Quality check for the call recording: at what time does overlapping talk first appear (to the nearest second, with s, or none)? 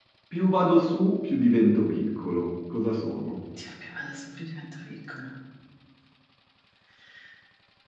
none